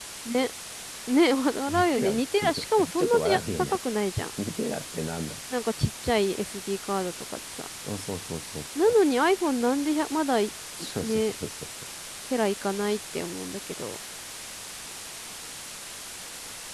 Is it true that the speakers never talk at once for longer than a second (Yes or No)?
No